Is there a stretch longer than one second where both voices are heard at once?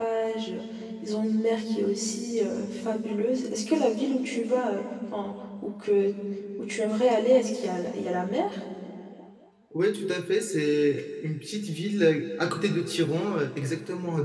No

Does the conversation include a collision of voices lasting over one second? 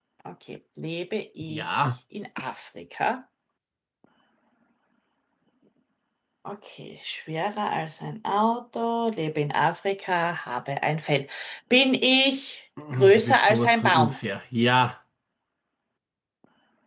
Yes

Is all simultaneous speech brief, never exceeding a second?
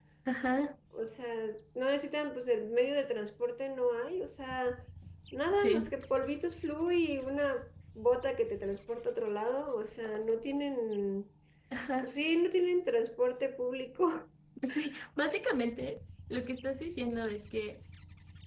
Yes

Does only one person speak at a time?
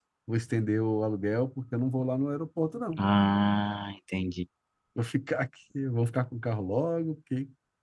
Yes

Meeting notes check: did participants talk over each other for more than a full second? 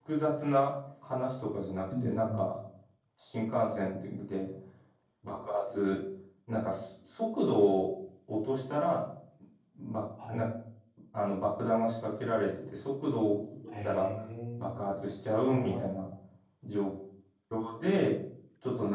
No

